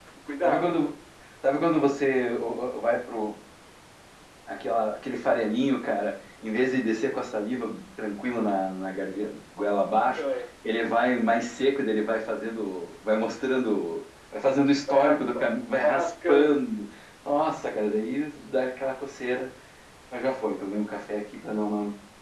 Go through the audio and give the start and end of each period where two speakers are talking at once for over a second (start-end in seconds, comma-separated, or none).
14.9-16.7